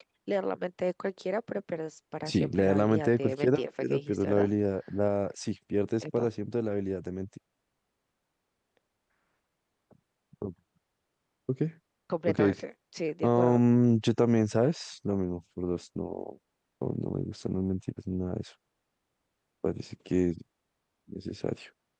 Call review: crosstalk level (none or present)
present